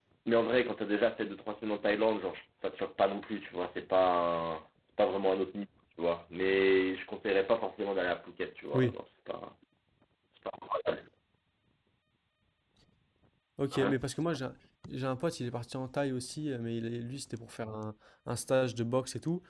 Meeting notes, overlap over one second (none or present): none